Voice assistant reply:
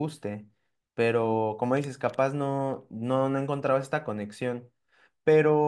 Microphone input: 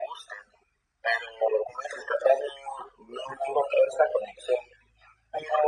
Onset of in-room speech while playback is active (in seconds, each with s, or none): none